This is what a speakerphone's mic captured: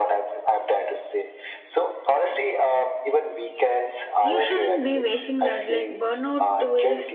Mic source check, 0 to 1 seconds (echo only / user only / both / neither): echo only